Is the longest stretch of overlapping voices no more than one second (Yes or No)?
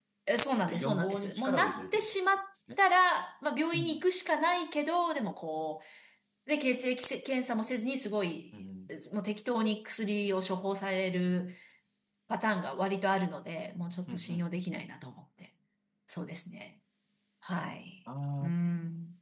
No